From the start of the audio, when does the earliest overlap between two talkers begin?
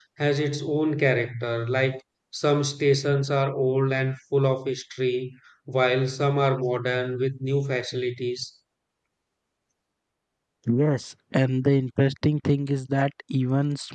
none

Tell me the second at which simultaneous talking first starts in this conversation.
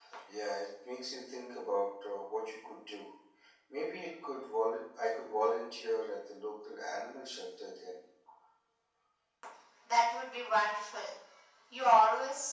none

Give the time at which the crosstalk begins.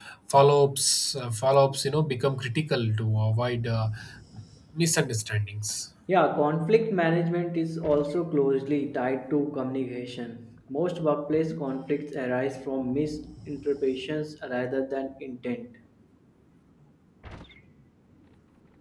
none

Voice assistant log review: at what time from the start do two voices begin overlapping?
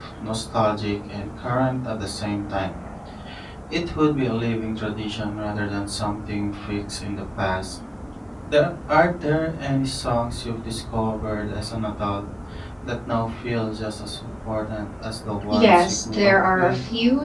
15.5 s

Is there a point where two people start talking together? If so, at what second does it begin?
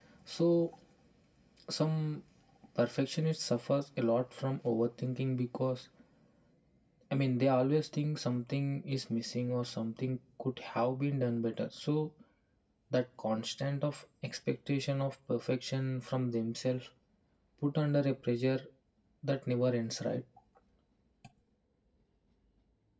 none

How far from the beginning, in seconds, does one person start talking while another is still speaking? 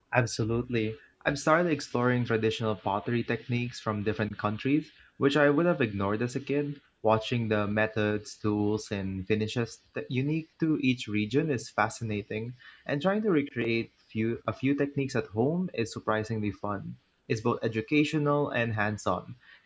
none

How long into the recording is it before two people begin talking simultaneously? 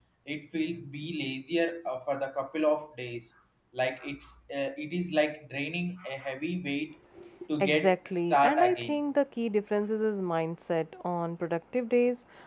7.6 s

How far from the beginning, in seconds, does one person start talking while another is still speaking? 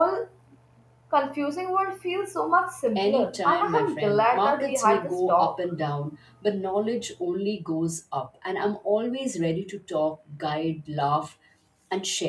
3.0 s

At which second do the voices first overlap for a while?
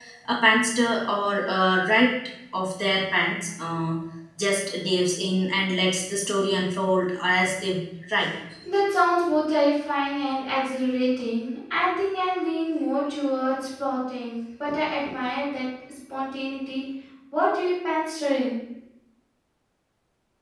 none

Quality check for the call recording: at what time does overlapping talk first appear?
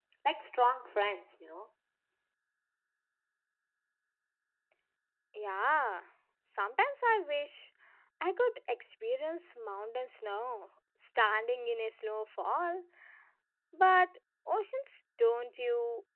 none

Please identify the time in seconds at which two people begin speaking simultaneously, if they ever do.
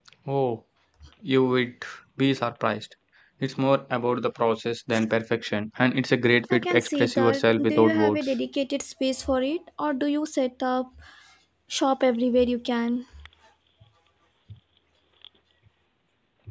6.5 s

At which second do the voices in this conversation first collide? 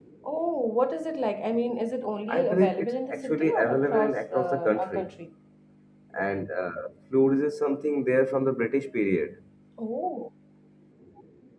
2.3 s

